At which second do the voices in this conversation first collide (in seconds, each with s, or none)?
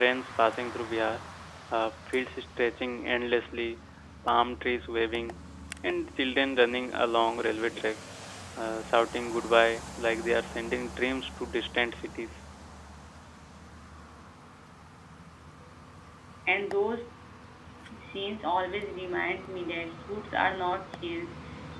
none